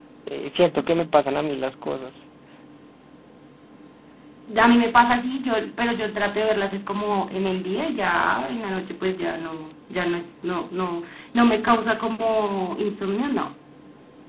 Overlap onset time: none

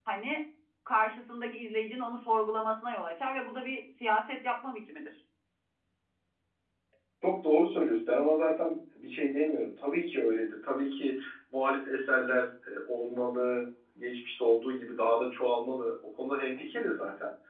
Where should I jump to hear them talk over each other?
none

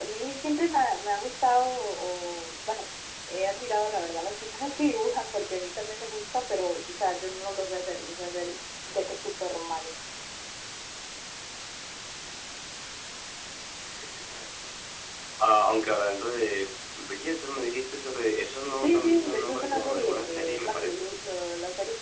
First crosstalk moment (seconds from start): 18.8 s

